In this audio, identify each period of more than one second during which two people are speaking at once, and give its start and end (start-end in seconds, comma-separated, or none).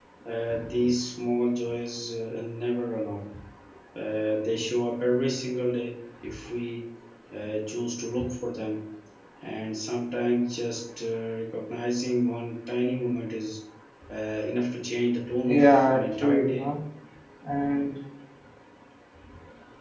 15.5-16.7